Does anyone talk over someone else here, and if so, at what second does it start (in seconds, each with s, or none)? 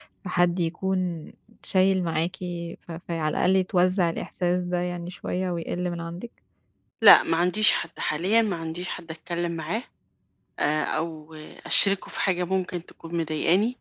none